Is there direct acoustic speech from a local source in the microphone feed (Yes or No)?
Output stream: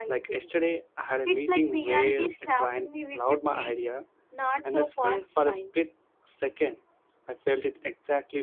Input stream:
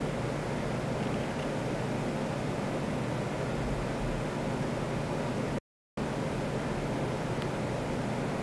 No